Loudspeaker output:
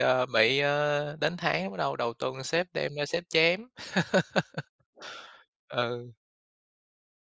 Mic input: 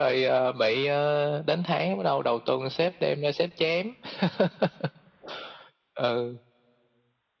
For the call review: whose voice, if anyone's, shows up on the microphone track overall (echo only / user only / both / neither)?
echo only